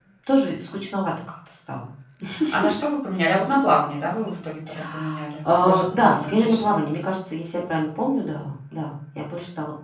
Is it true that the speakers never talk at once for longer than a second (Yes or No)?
No